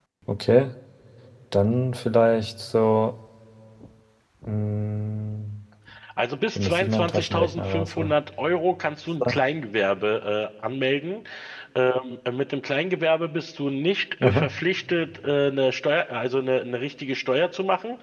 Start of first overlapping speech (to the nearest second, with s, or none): 7 s